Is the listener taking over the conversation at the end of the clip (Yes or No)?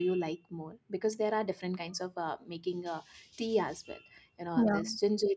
No